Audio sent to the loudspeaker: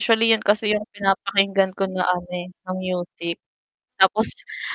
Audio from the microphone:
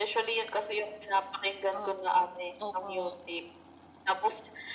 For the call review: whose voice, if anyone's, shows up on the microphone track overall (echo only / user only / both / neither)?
both